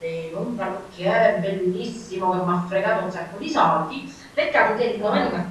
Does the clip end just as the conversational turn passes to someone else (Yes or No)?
No